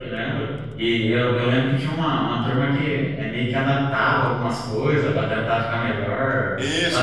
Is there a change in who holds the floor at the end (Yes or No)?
Yes